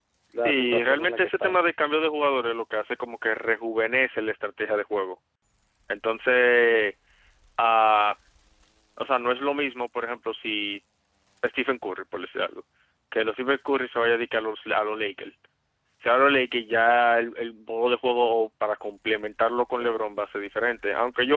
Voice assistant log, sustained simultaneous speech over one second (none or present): present